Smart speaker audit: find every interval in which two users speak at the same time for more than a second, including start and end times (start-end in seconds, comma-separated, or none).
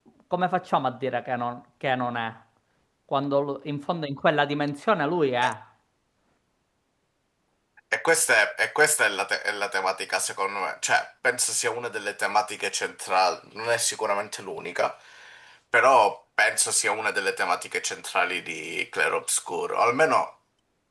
none